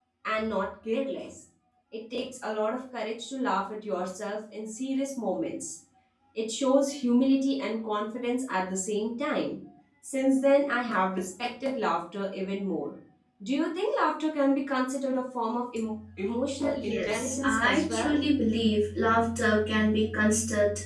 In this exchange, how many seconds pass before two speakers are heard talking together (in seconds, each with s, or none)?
16.8 s